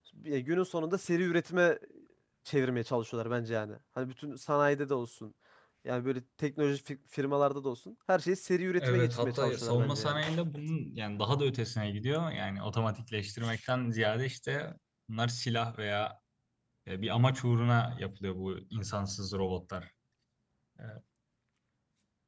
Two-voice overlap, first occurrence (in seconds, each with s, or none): 8.8 s